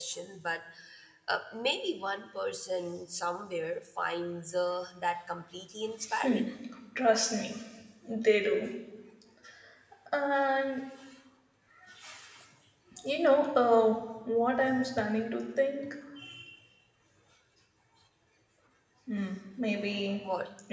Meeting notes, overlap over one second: none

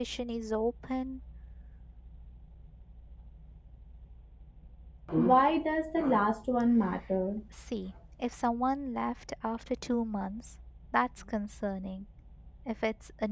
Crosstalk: none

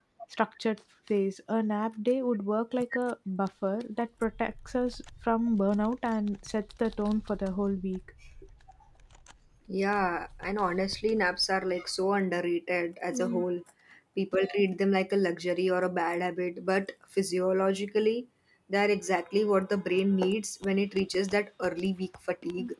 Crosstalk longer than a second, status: none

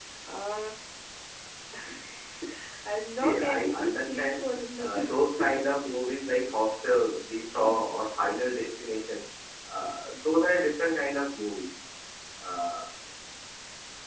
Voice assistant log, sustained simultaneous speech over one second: present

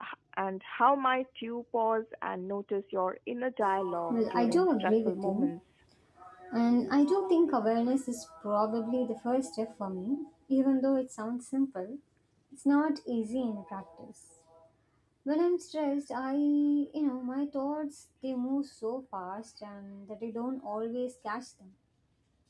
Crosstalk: present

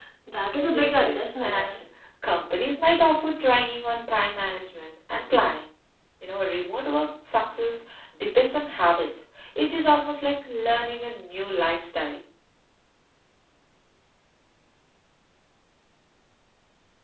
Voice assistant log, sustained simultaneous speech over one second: present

